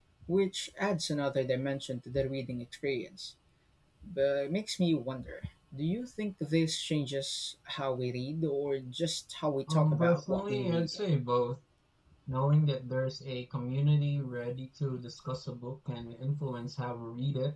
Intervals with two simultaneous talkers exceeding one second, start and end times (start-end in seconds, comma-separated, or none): 9.7-11.0